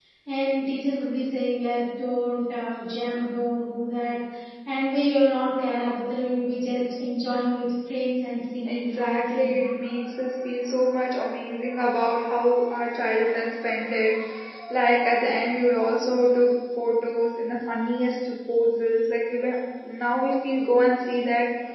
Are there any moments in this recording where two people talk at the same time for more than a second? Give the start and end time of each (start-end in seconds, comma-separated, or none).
8.6-10.0